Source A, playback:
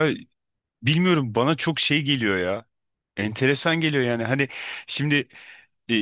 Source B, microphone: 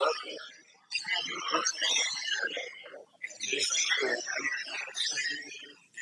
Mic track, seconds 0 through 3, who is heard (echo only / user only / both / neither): echo only